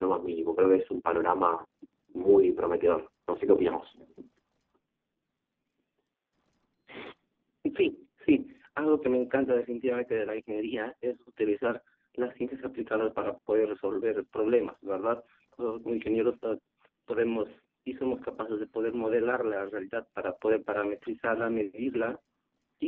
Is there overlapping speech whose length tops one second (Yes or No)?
No